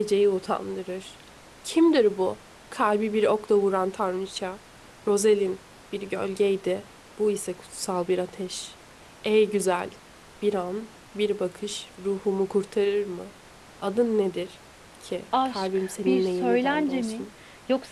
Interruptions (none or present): present